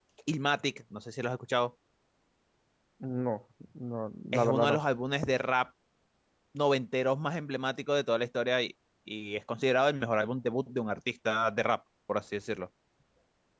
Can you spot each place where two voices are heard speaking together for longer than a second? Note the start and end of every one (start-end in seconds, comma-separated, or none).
none